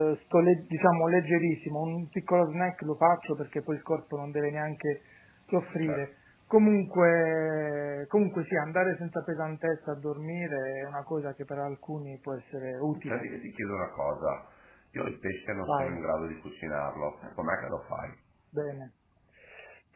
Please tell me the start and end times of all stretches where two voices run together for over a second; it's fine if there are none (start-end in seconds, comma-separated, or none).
none